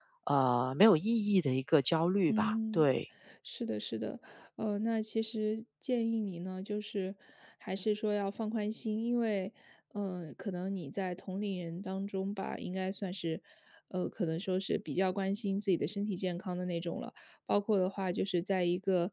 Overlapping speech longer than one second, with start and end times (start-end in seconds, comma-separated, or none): none